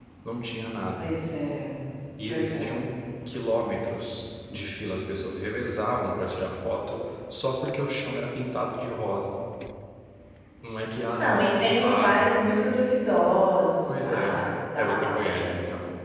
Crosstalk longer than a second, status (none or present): present